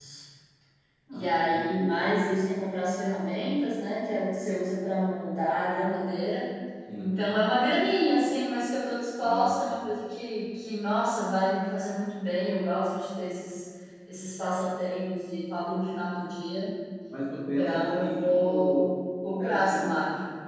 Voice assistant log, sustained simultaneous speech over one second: present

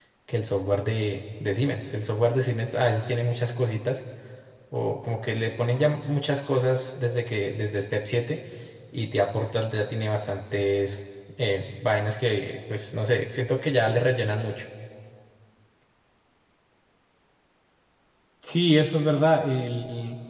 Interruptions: none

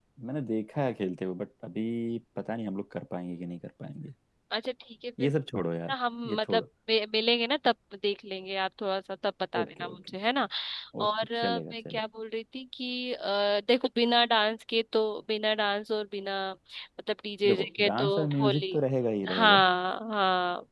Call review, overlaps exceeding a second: present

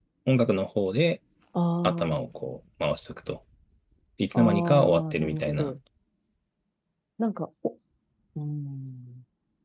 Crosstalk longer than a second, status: present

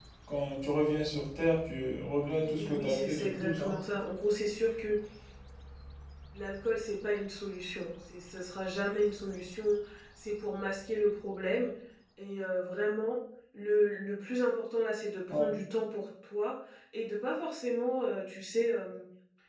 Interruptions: present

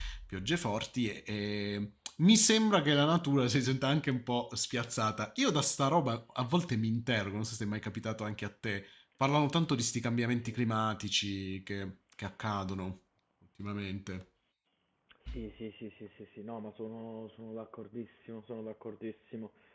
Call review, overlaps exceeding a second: none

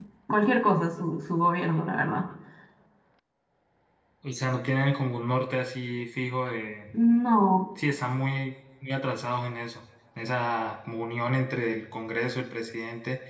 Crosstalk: none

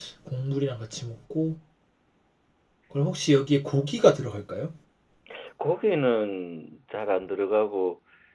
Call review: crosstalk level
none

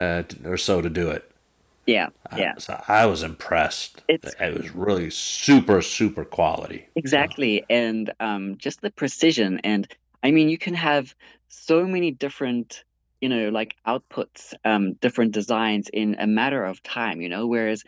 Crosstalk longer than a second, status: none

